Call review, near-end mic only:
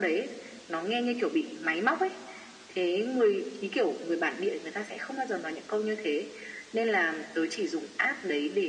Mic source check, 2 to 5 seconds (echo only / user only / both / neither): echo only